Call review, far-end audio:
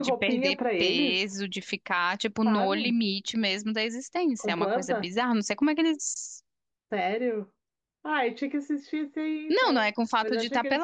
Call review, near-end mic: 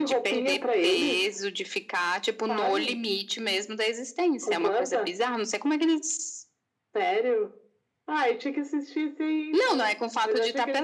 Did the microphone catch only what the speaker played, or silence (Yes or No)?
Yes